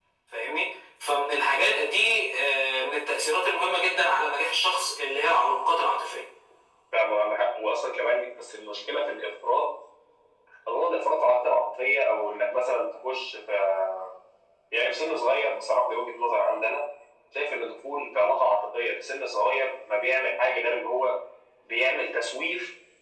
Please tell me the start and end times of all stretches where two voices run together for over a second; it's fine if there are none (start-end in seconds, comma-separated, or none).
none